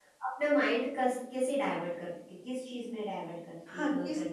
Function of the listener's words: taking over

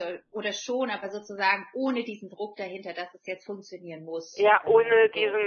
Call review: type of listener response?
taking over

